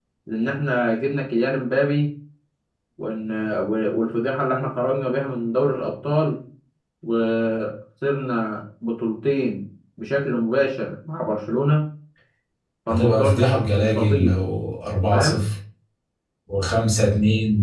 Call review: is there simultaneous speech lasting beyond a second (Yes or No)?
Yes